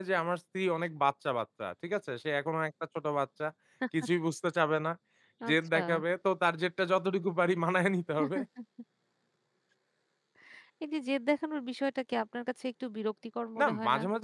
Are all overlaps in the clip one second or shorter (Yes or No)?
Yes